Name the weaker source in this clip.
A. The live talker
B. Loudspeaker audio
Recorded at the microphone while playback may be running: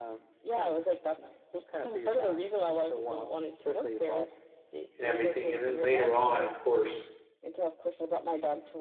B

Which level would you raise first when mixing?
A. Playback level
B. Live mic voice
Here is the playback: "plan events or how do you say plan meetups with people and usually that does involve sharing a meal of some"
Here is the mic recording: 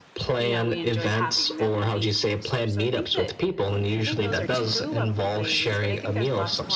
B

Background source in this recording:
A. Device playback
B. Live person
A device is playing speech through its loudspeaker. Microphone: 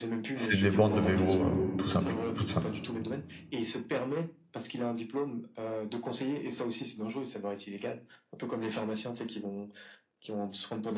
A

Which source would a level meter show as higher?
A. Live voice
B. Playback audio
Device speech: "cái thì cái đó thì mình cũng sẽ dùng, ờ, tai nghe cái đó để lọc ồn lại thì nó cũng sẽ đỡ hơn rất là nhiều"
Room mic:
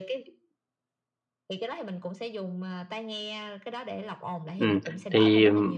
A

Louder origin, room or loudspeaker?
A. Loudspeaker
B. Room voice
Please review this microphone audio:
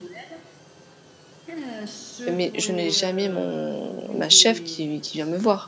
B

